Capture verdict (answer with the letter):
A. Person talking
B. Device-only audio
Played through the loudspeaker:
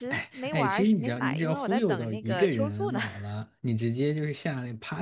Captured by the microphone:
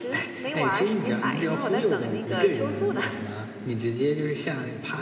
B